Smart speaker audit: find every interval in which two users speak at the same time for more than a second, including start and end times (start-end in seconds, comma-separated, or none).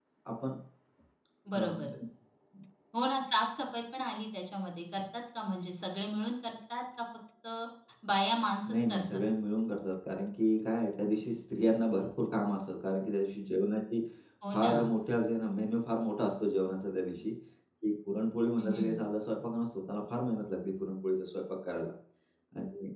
none